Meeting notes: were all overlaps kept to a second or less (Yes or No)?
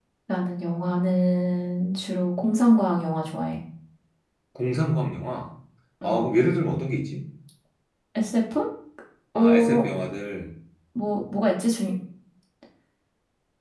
Yes